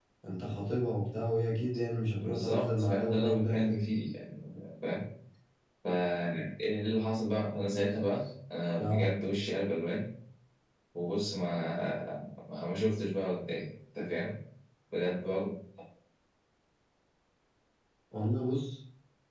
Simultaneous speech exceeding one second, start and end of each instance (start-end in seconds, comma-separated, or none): 2.2-3.8